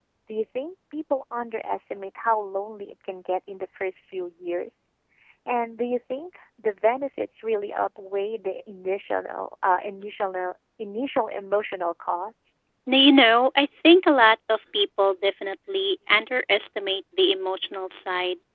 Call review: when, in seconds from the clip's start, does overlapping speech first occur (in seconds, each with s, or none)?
none